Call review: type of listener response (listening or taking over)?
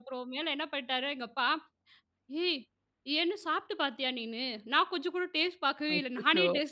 listening